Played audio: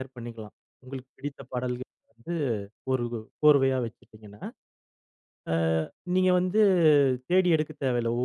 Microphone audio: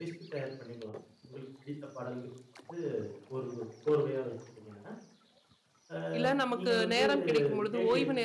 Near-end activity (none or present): present